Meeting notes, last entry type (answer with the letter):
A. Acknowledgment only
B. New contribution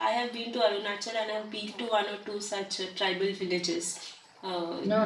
A